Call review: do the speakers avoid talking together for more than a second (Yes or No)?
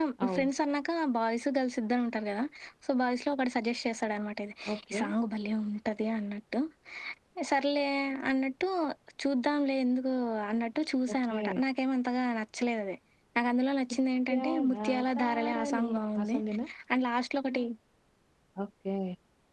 No